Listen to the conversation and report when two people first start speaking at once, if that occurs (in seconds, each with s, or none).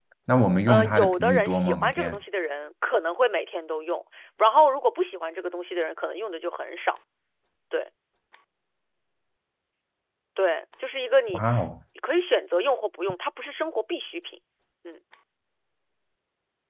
0.7 s